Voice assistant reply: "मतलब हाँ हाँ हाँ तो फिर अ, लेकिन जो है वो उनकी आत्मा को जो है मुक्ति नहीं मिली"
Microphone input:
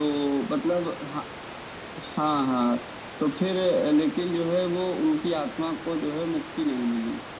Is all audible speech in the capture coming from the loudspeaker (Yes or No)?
Yes